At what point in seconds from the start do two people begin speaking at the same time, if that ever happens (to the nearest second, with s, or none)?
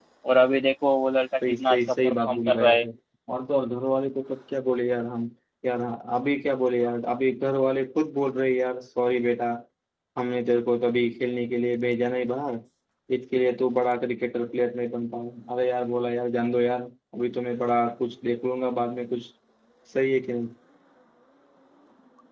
1 s